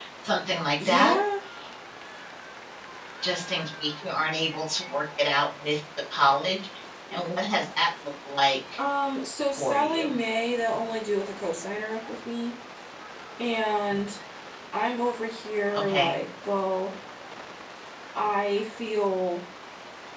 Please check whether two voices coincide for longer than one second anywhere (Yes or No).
No